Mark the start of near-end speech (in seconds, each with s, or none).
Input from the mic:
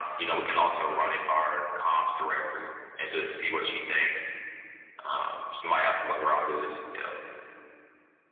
none